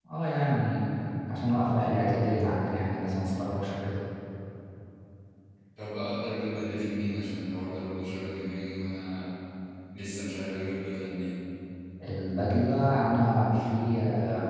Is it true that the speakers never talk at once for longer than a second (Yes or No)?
Yes